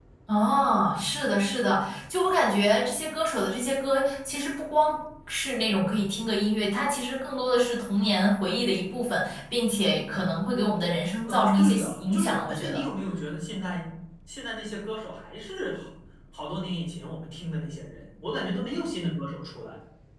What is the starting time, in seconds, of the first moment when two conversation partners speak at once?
11.3 s

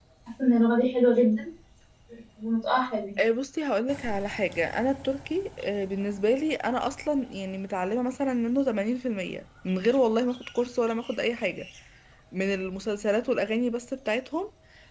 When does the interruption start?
none

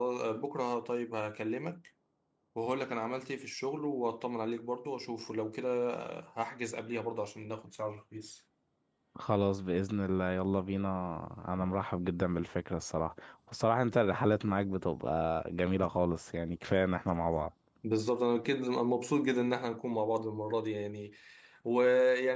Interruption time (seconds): none

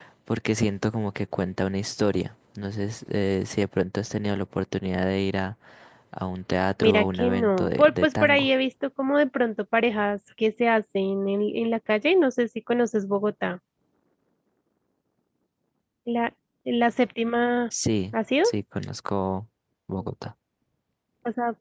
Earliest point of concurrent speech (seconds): 6.8 s

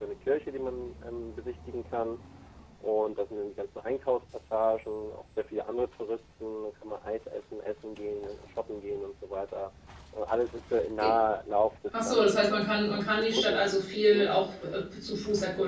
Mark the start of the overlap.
11.9 s

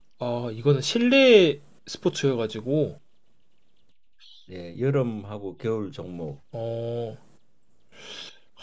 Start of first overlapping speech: none

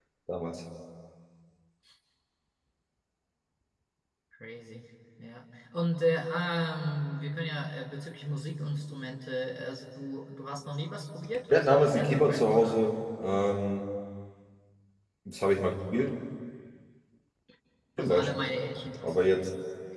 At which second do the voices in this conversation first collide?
11.5 s

